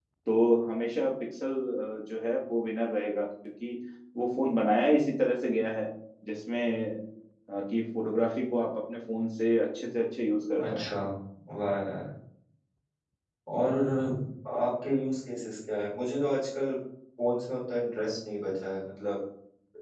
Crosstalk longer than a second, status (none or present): none